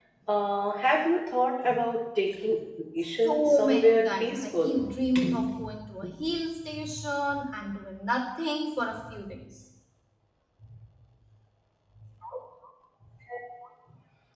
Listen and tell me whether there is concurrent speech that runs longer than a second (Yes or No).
Yes